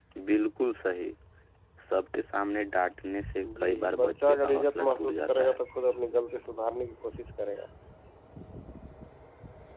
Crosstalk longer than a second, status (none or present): present